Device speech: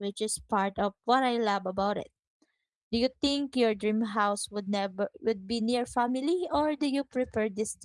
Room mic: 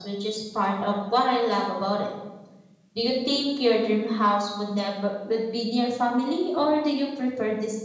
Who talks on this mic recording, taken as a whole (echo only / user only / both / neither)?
echo only